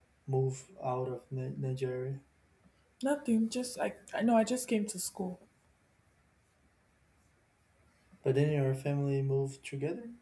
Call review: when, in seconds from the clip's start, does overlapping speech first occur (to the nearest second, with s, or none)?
none